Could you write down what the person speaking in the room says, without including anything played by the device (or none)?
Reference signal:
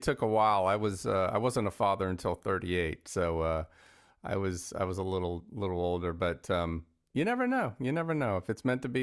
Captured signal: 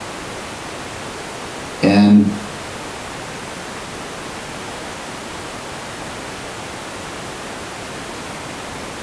and